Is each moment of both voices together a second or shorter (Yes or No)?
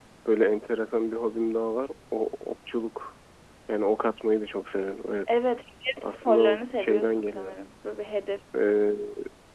No